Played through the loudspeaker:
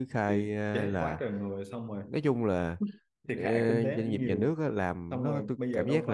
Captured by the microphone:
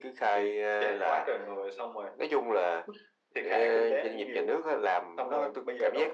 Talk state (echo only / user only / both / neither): echo only